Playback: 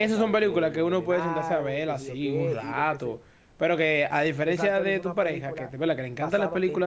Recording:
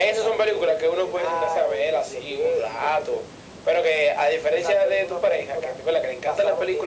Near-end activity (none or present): none